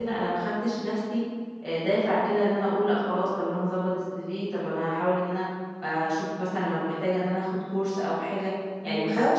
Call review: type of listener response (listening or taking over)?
listening